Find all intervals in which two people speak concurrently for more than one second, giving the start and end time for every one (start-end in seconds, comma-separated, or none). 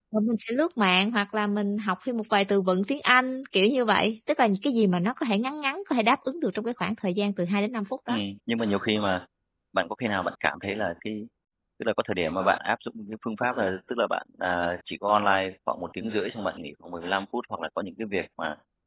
none